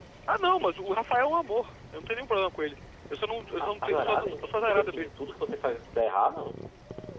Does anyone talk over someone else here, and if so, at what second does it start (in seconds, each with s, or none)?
3.6 s